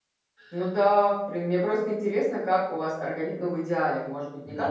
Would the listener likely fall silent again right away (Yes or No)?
Yes